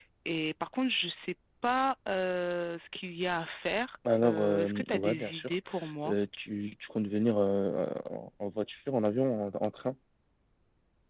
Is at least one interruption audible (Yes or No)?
Yes